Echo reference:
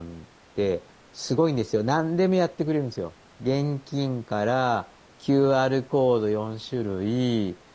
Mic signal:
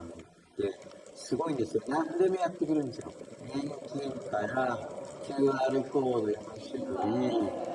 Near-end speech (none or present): present